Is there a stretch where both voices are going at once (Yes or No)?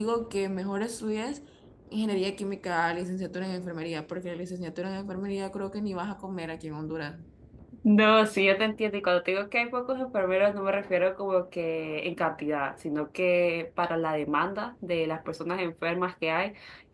No